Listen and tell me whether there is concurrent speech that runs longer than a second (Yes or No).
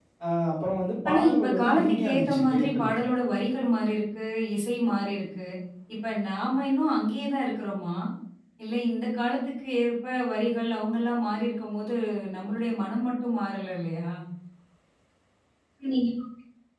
Yes